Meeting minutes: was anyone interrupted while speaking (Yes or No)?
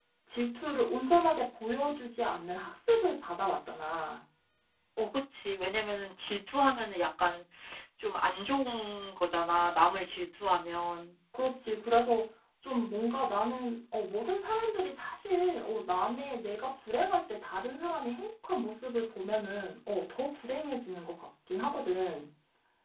No